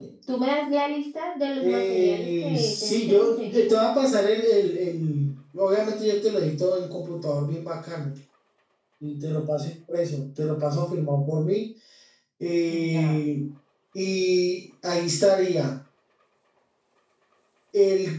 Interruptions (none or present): present